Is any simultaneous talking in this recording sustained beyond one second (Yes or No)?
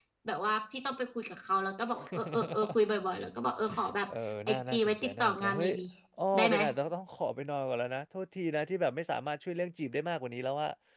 Yes